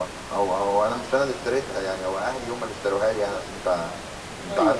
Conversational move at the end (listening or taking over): listening